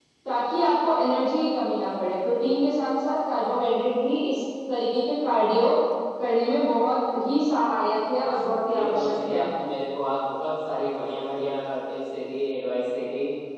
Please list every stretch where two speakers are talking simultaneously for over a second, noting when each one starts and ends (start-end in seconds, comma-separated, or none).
8.2-9.4